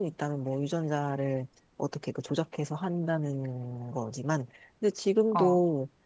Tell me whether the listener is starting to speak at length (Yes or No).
No